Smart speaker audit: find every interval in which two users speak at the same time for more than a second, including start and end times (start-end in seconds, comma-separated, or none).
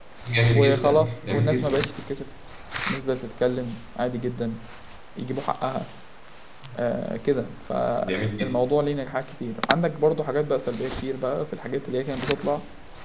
0.5-1.9